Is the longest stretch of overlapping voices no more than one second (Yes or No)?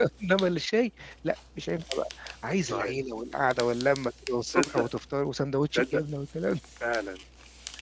Yes